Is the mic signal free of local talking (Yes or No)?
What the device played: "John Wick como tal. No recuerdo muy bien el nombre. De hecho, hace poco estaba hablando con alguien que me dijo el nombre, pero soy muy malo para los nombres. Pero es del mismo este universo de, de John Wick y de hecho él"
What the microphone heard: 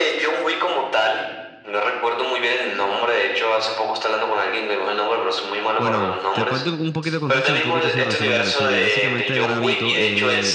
No